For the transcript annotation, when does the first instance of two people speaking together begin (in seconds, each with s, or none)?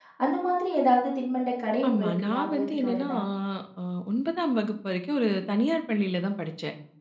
1.8 s